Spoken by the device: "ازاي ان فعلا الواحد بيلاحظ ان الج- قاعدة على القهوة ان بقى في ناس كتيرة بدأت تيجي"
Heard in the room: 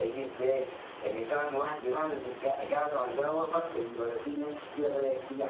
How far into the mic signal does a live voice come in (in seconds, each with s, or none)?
none